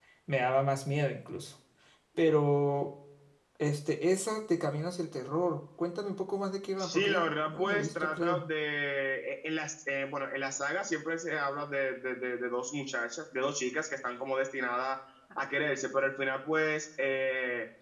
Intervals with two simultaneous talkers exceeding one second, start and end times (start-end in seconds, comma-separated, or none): 6.8-8.4